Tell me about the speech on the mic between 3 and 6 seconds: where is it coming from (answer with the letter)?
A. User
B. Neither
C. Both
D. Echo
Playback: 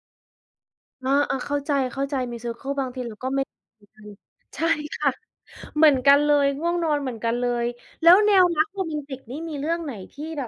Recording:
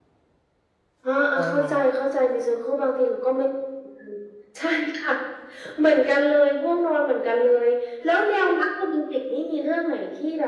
D